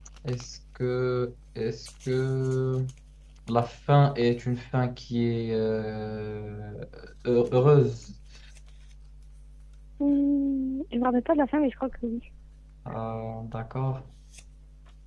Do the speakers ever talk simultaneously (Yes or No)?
No